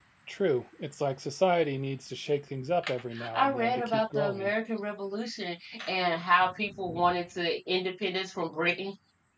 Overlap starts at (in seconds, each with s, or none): 3.1 s